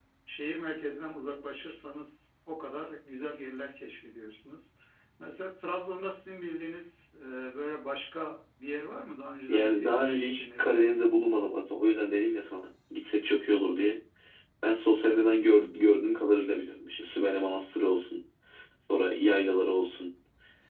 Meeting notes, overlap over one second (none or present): present